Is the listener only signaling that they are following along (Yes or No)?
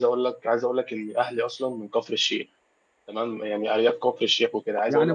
No